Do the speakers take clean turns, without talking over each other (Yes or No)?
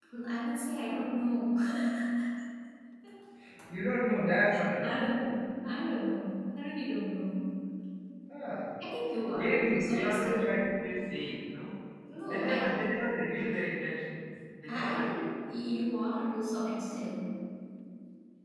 No